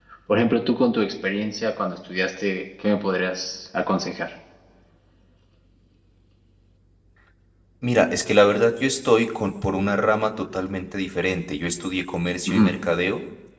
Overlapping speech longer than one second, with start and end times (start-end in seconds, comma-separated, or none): none